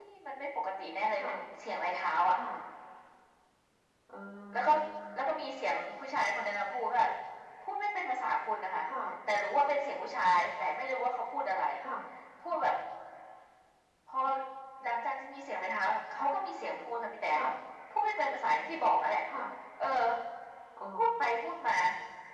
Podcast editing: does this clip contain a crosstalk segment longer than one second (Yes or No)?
No